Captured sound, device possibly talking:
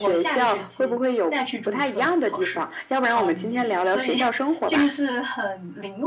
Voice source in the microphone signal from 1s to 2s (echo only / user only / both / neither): both